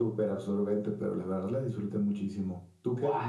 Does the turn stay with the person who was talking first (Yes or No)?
No